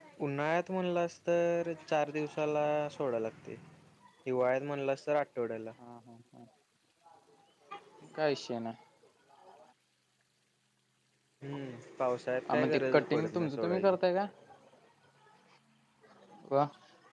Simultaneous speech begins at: 12 s

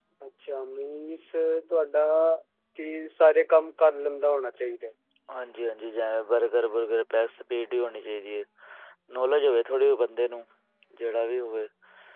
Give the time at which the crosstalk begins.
none

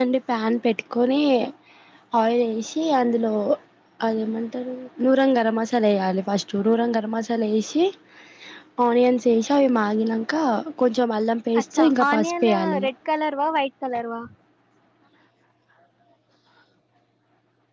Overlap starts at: 12 s

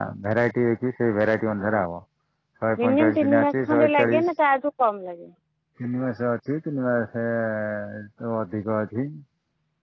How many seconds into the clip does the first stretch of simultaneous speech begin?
3 s

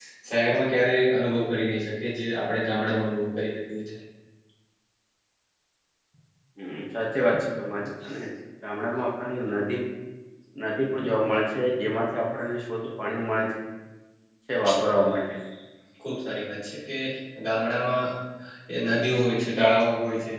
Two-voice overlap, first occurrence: none

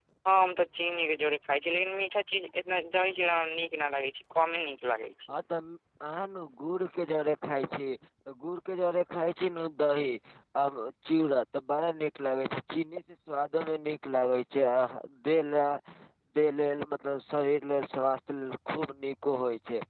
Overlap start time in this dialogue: none

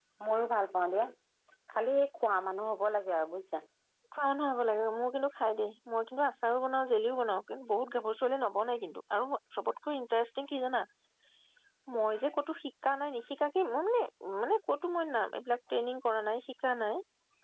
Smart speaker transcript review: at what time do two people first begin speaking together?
none

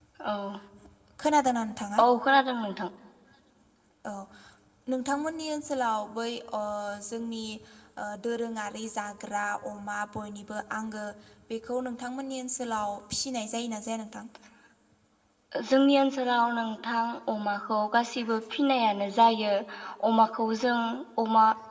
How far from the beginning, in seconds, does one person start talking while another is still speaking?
none

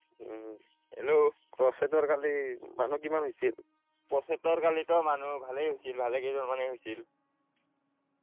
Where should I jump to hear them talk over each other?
none

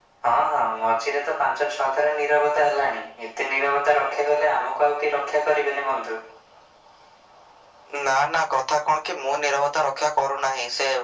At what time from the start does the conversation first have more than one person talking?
none

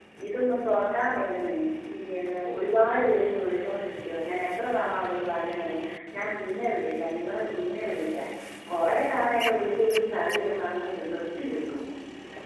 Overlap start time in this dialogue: none

